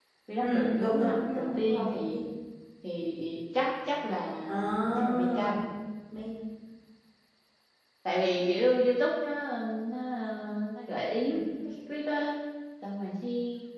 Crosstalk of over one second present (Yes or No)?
Yes